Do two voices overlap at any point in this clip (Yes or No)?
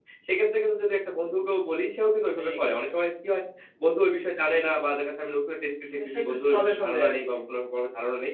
Yes